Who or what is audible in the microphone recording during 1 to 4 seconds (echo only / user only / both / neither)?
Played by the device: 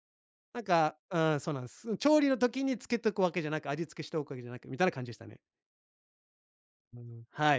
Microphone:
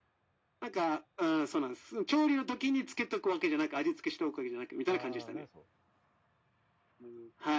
echo only